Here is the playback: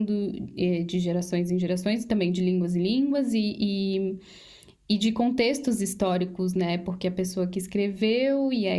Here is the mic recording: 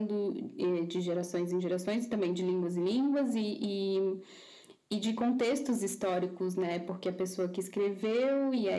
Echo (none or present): present